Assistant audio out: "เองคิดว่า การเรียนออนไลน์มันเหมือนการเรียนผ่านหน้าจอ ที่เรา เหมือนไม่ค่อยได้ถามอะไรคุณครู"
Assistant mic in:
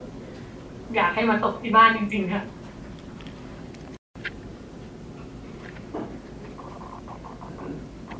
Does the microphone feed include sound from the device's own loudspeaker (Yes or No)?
No